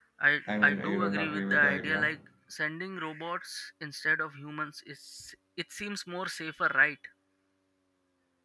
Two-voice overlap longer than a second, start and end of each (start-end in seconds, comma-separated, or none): 0.7-2.1